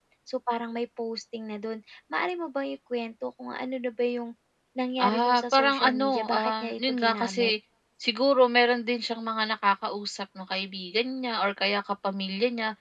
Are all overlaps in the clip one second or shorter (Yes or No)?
No